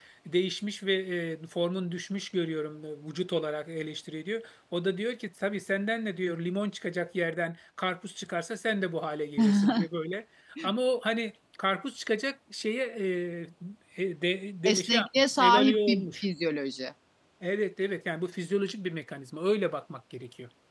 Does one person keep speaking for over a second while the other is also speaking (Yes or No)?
Yes